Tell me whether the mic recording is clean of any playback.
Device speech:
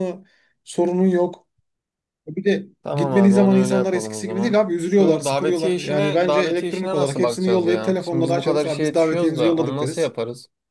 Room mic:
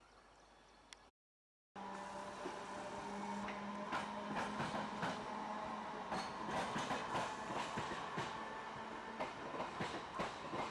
Yes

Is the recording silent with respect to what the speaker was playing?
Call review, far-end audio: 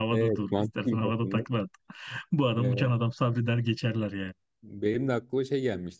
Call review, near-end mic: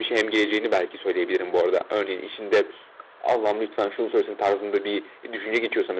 Yes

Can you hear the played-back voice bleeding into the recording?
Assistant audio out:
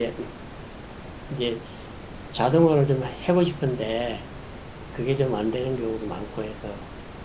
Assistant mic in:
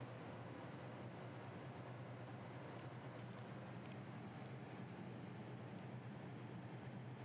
No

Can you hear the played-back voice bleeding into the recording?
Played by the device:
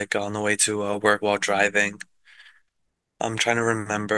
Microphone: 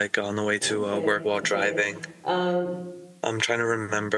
Yes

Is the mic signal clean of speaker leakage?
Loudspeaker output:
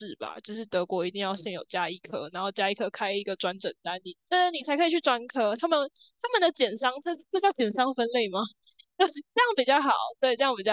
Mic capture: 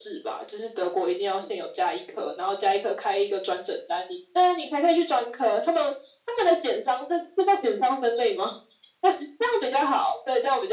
No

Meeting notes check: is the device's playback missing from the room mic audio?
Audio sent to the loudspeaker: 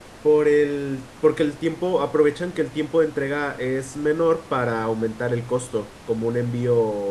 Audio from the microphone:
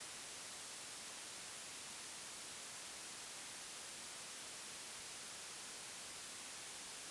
Yes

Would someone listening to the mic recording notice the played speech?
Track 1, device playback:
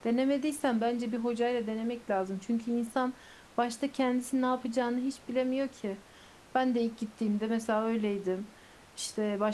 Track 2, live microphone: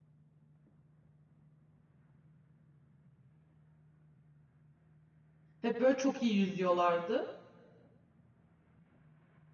No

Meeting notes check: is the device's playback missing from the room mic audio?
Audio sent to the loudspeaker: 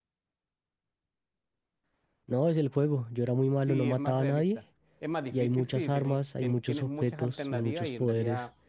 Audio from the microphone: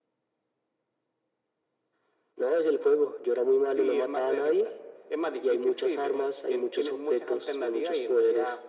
No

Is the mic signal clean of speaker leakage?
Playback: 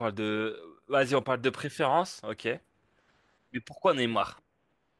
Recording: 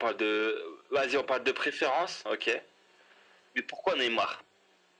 No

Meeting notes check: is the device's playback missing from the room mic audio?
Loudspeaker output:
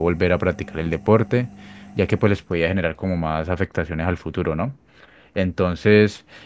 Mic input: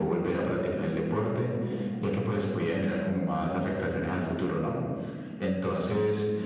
No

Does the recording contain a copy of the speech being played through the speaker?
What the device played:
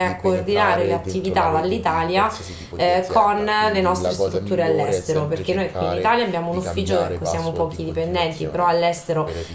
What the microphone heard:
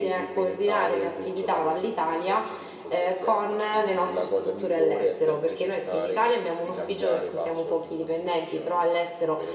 Yes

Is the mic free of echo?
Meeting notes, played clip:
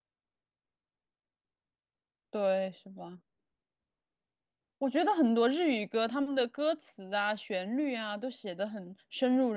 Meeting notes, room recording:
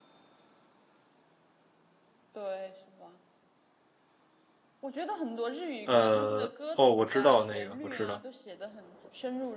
No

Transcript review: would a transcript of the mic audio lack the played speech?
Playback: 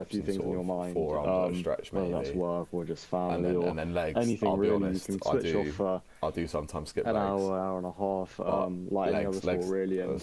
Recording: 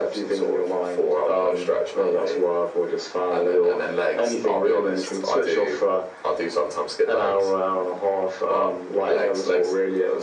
No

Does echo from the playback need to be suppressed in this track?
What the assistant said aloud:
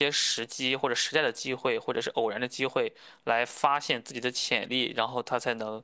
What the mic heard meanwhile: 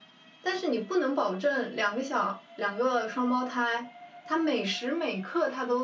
No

